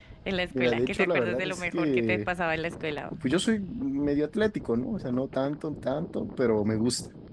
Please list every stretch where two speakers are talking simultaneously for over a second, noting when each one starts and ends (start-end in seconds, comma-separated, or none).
0.6-2.2